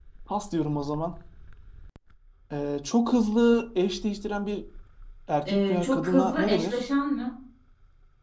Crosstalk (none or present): present